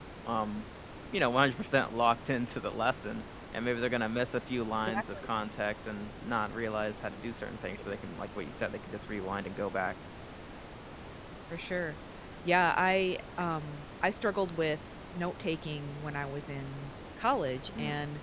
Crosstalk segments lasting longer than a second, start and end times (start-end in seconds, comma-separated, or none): none